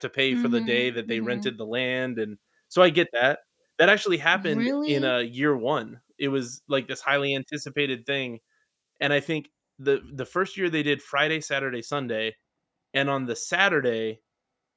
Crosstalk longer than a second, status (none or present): present